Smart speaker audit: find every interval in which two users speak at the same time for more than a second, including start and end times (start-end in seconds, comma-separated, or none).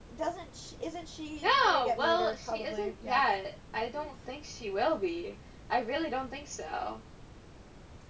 1.4-3.2